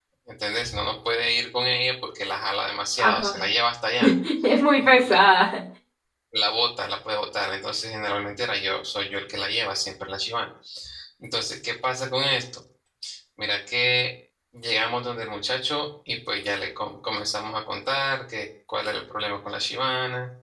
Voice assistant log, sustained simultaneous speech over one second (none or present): none